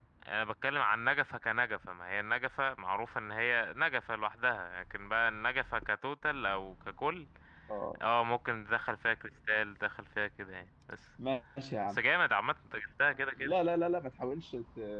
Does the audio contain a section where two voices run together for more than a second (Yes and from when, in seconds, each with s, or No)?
No